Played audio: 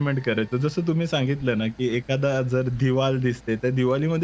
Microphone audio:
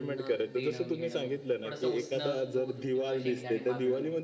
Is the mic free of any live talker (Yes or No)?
No